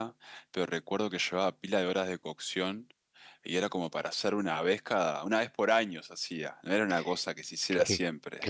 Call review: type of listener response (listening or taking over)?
taking over